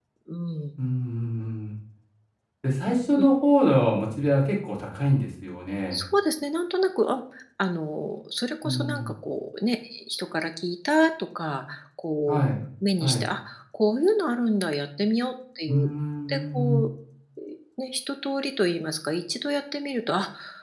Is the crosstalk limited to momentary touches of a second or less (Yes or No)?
Yes